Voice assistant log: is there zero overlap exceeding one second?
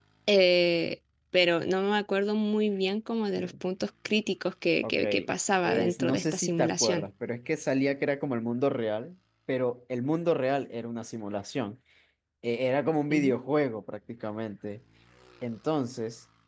No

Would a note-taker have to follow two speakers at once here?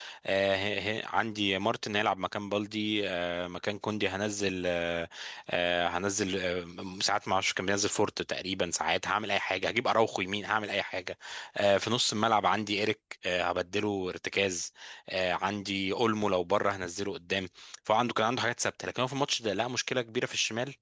No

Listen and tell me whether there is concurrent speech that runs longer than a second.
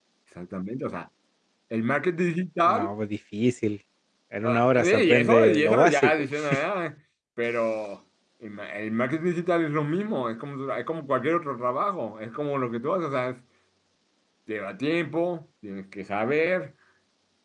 Yes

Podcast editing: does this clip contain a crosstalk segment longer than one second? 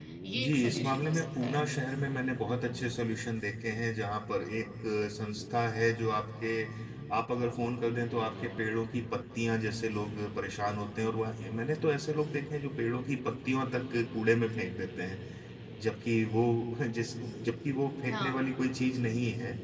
Yes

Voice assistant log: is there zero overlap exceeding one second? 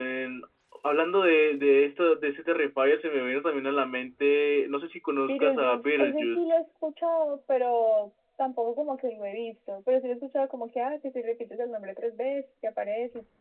No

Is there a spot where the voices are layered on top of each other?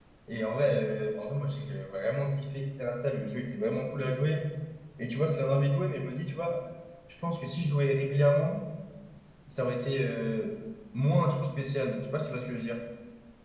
No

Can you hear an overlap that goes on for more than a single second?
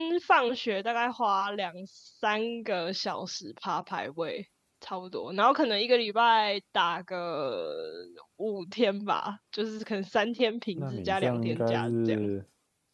Yes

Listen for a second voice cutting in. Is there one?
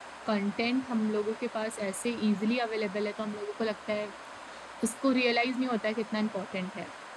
No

